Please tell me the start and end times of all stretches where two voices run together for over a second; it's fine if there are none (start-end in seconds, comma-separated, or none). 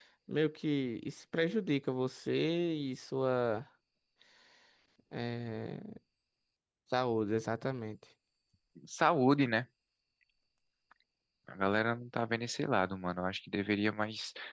none